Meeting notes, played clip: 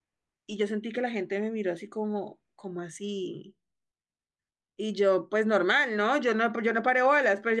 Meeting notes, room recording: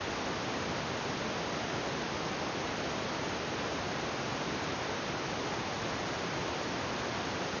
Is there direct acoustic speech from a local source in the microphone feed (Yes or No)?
No